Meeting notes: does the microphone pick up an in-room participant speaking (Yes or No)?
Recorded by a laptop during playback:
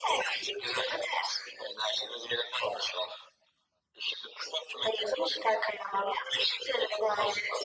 No